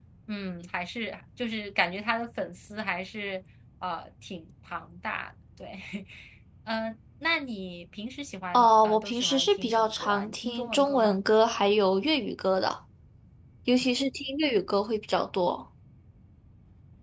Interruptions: present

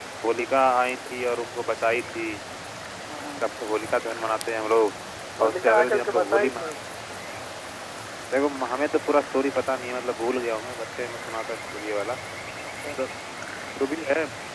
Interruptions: present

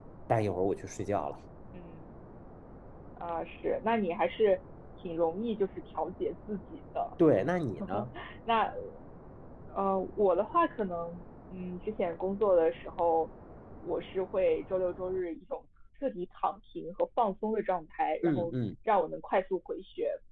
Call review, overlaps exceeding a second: none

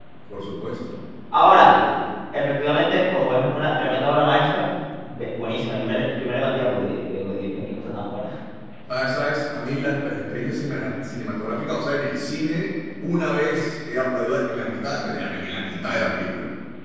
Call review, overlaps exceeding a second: none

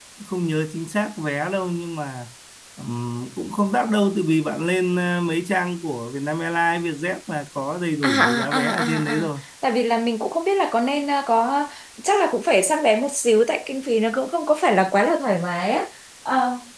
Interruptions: present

